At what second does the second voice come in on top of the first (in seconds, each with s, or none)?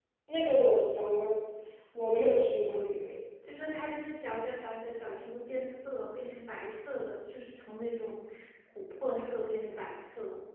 none